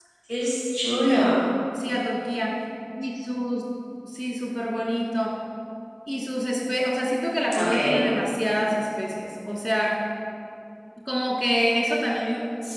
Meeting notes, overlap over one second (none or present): none